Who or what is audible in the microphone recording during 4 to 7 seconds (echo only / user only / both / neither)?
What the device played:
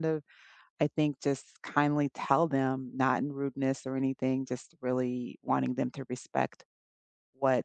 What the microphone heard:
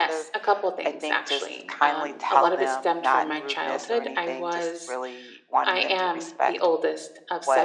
both